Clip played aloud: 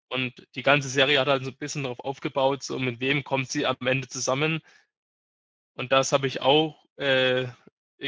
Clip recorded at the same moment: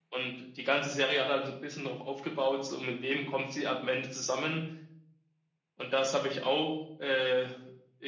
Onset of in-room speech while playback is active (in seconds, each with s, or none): none